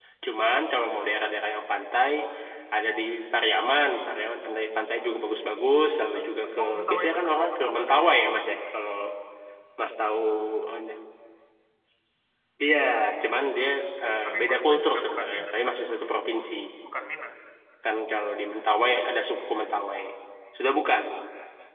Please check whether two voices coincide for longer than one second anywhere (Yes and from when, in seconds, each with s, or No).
Yes, from 6.1 s